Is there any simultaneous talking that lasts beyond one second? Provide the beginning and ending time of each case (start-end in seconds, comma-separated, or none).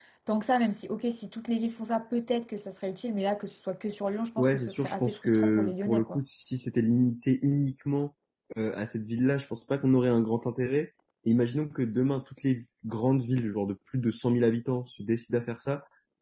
4.4-6.2